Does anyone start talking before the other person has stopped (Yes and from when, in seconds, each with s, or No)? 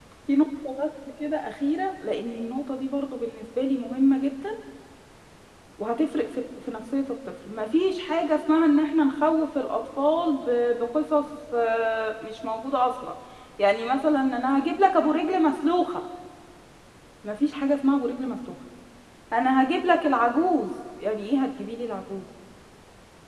No